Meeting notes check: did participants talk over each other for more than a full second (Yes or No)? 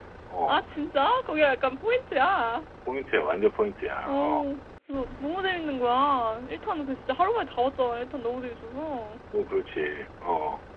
No